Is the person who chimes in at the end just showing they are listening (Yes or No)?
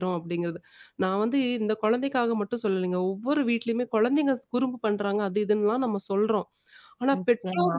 Yes